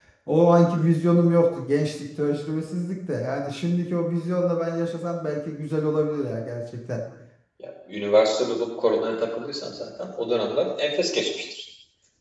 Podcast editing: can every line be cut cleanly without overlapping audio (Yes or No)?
Yes